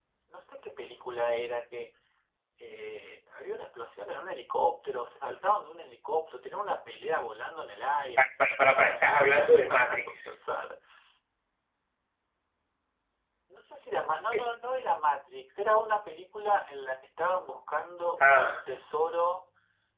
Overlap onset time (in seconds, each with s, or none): 8.4 s